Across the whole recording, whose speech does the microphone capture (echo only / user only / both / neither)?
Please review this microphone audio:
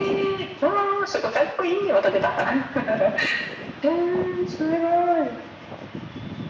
echo only